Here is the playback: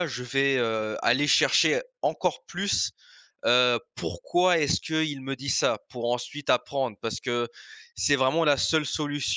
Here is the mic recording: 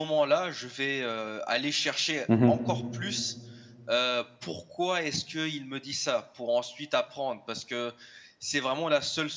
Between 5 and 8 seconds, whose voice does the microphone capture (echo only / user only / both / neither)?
echo only